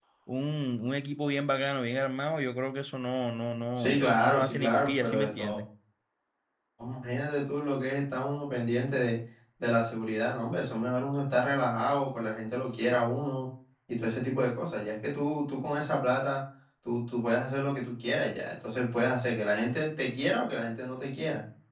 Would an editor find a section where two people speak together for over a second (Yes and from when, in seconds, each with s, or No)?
Yes, from 3.8 s